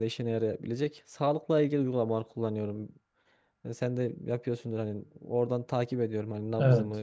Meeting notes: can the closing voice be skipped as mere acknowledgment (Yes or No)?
Yes